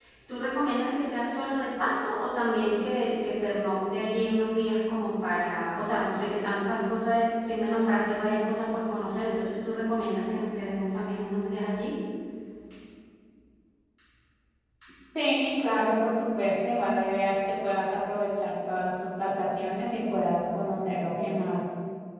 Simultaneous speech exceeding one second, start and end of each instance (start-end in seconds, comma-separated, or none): none